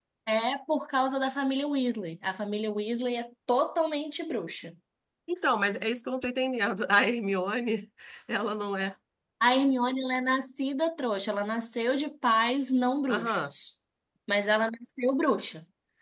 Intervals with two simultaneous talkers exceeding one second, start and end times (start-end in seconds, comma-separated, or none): none